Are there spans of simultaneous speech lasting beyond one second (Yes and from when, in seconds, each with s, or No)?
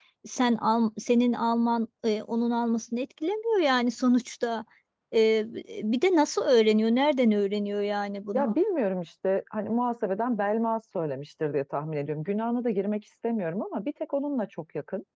No